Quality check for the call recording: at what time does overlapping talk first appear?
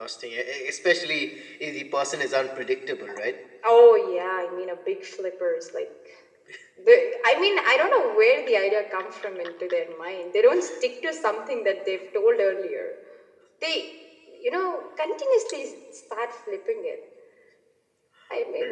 none

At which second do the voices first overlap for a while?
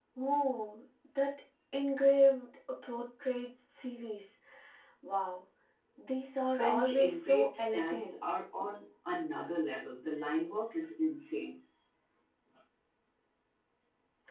7 s

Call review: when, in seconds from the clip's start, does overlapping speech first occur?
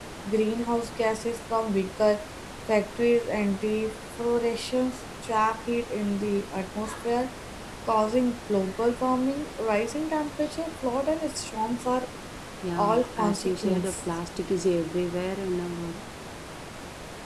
13 s

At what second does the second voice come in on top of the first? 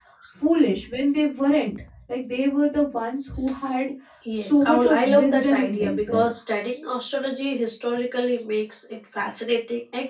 4 s

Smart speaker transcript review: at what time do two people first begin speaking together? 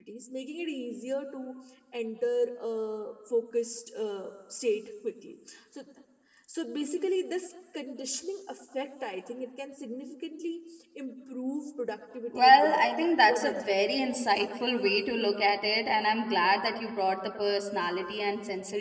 12 s

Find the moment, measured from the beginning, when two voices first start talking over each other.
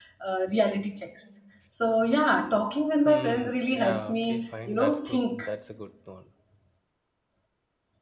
3 s

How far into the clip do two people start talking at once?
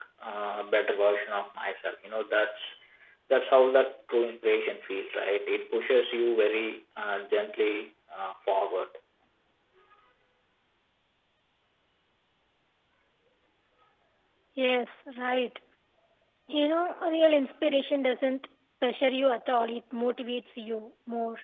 none

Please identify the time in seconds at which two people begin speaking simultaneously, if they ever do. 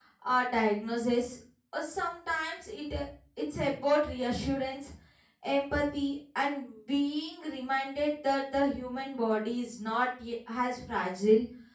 none

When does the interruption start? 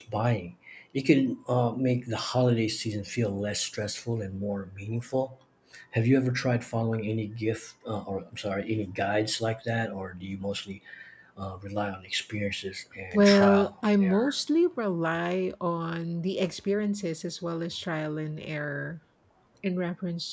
13 s

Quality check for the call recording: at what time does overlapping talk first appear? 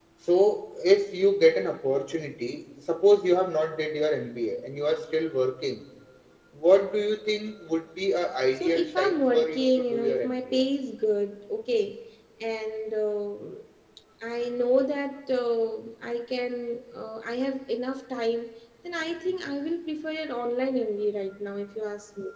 9 s

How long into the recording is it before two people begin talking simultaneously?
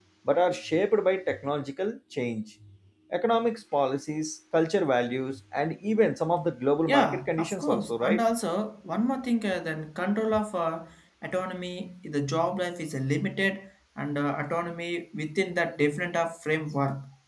7 s

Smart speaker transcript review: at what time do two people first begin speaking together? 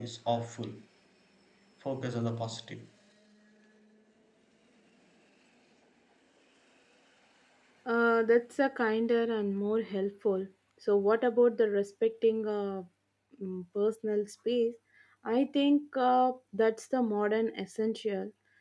none

